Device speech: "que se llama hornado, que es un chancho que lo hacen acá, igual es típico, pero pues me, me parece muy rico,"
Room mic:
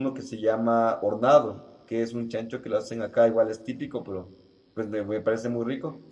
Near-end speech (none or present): none